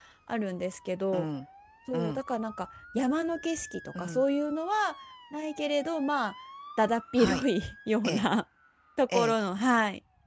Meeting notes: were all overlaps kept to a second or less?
Yes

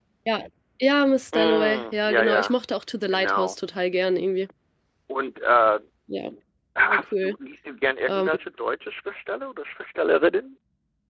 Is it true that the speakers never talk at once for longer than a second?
No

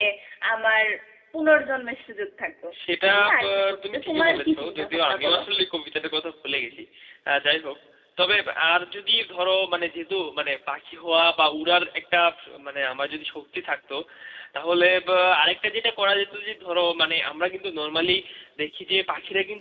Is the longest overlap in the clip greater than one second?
Yes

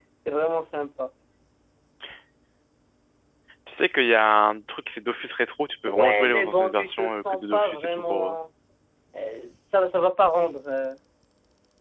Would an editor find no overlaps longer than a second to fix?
No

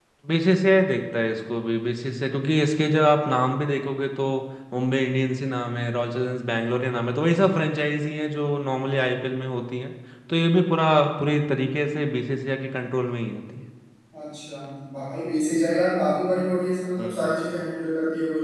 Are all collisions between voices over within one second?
Yes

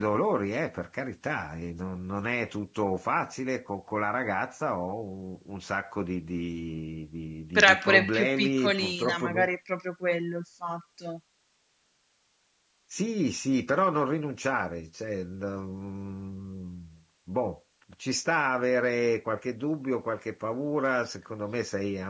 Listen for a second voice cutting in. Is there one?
Yes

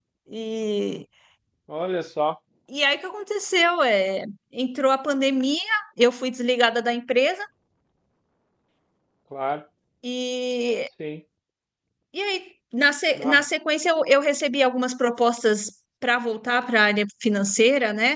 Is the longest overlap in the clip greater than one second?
No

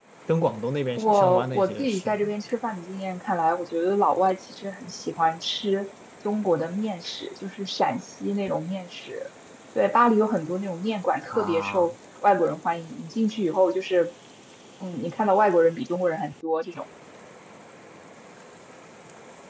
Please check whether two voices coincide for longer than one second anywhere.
Yes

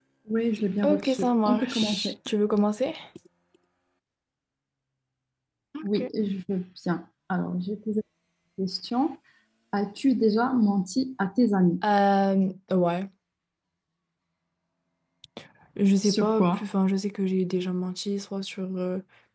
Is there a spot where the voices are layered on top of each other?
Yes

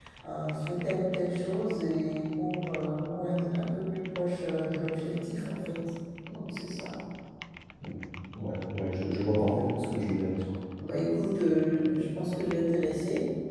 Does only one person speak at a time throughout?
Yes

